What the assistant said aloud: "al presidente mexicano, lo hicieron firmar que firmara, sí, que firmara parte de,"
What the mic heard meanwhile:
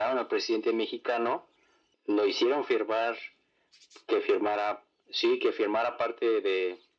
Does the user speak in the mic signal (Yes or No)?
No